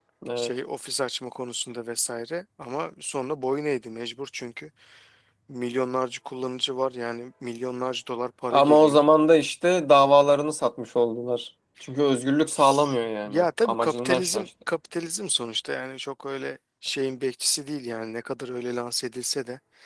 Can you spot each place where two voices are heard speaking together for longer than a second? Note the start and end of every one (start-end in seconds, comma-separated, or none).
13.2-14.4